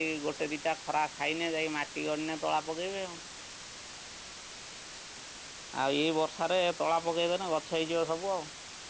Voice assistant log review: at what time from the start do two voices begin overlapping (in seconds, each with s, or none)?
none